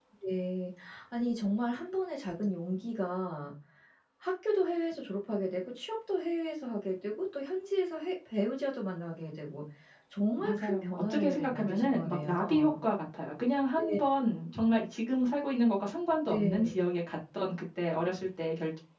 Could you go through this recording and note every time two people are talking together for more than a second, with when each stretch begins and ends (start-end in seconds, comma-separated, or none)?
10.4-12.7